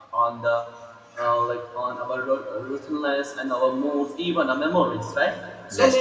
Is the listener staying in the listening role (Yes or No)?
Yes